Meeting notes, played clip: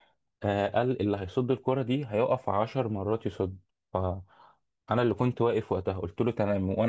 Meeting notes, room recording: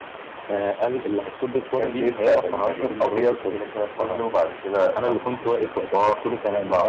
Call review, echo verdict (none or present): present